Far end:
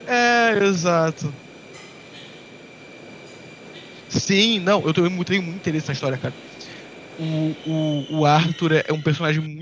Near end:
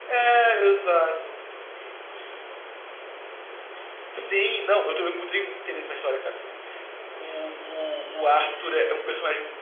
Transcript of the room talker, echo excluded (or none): none